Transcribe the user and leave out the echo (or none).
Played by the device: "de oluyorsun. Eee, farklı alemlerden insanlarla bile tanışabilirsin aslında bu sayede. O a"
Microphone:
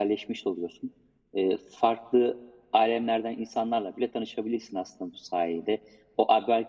none